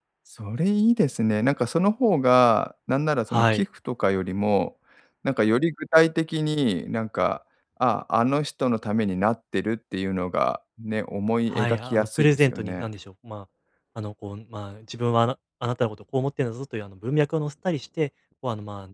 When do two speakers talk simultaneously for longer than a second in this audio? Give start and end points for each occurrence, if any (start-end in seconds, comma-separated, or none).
11.5-12.8